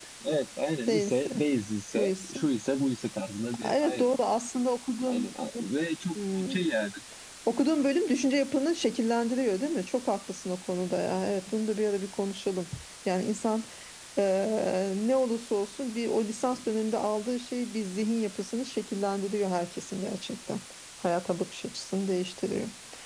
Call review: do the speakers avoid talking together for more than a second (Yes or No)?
Yes